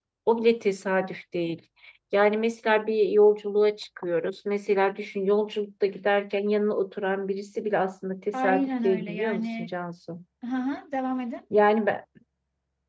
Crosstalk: present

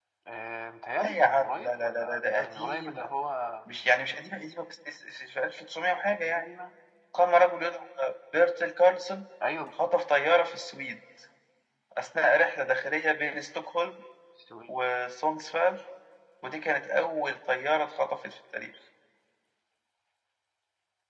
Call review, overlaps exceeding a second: present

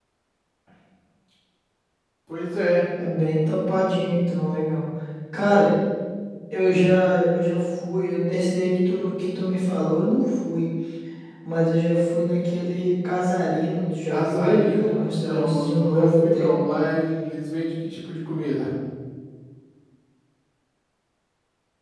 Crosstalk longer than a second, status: present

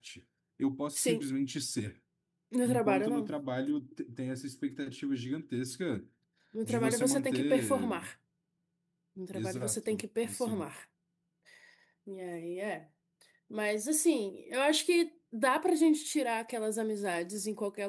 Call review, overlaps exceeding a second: present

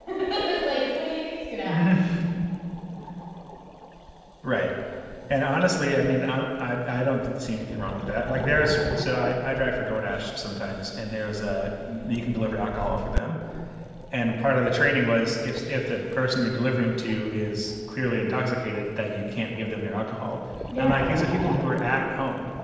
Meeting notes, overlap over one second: none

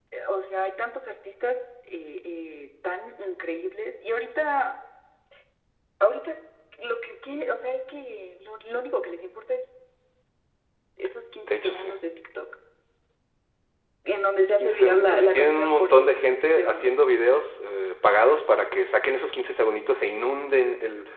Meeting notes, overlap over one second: present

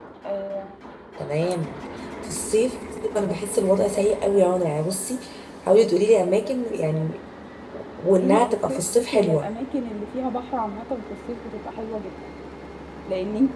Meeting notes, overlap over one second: present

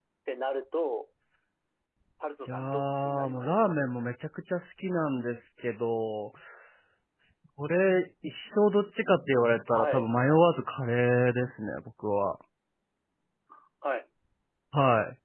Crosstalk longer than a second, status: present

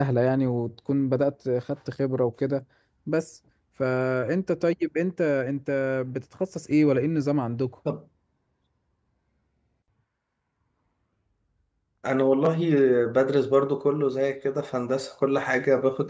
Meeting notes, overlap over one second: none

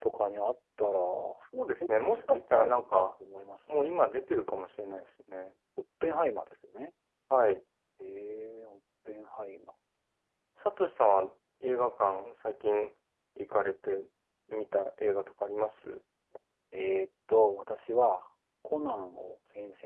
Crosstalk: present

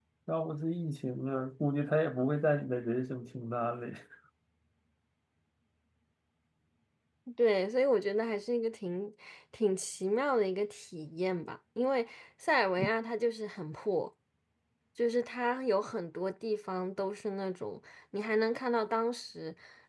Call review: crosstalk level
none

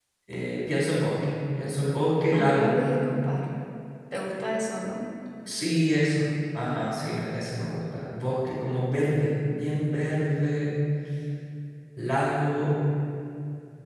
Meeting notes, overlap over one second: none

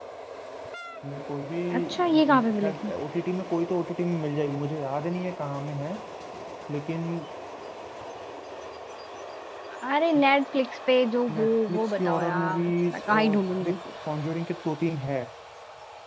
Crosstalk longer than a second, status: present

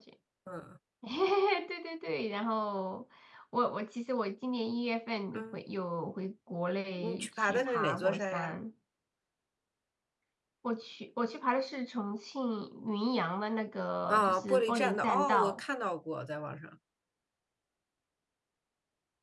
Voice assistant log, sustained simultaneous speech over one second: present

